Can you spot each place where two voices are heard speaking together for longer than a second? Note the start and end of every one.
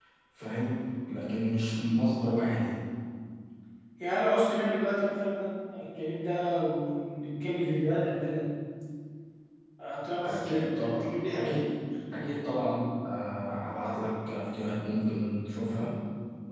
10.2-11.5

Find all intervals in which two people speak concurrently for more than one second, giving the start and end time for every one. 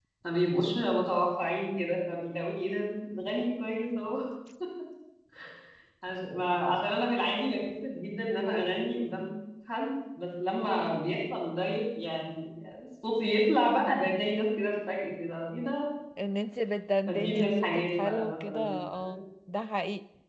17.1-19.2

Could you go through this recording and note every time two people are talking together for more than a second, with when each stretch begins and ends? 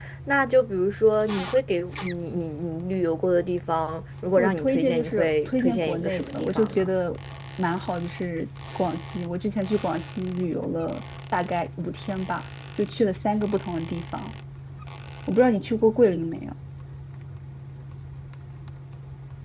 4.4-6.9

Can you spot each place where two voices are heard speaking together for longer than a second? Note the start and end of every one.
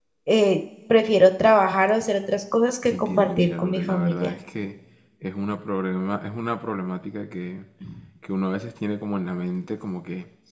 2.9-4.3

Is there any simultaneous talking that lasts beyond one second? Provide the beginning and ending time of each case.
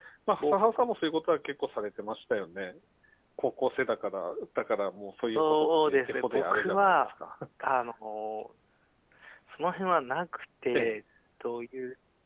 5.2-7.1

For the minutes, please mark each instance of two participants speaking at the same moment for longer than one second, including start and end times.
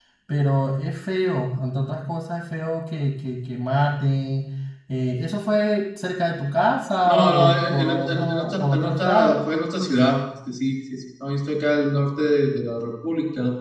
7.0-9.3

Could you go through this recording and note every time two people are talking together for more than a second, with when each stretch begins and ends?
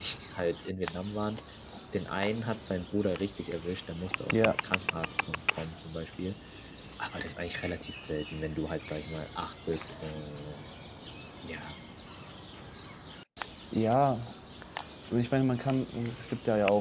none

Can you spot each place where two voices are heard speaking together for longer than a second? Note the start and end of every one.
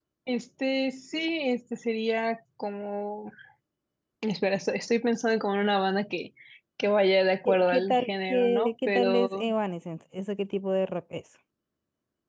7.5-9.4

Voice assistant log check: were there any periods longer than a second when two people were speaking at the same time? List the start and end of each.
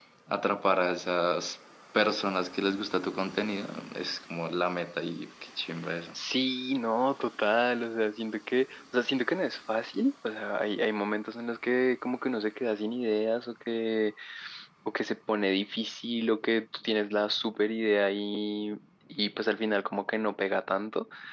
none

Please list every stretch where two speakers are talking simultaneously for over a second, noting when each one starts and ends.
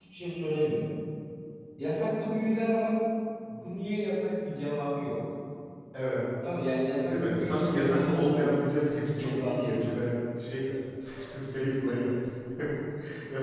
7.0-9.8

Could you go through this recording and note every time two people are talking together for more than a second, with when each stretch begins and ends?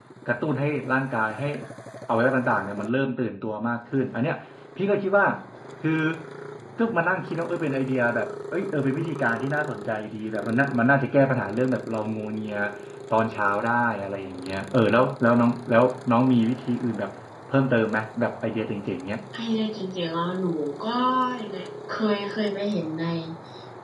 none

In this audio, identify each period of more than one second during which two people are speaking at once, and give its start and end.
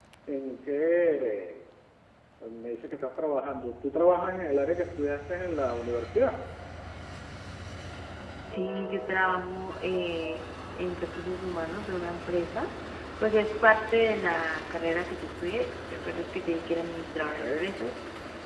none

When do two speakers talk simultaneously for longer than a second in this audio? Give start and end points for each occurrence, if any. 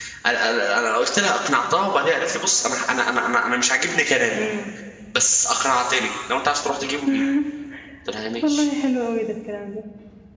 none

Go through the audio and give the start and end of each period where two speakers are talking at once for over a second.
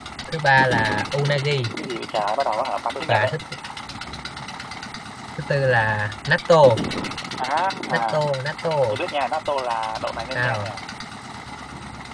none

